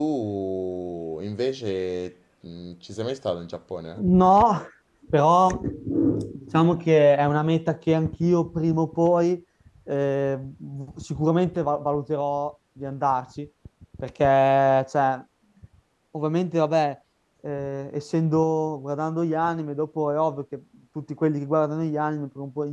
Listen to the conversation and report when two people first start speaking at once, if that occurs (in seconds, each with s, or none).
none